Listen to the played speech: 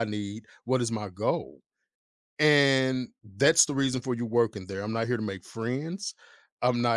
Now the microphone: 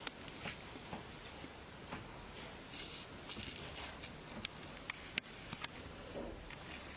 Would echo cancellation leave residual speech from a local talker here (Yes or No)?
No